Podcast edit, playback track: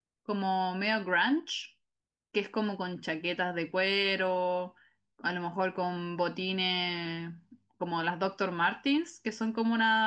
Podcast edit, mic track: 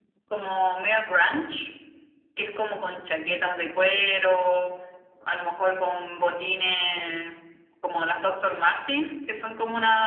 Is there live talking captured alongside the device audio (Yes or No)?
No